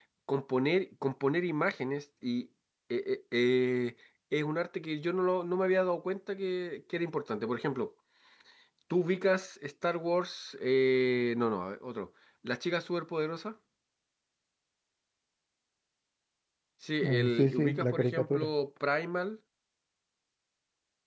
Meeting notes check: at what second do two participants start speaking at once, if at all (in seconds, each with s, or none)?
17.0 s